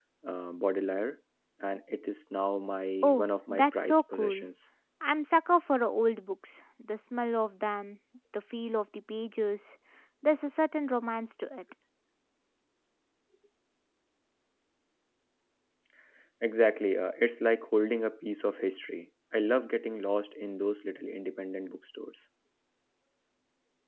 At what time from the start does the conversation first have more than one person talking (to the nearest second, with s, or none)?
3 s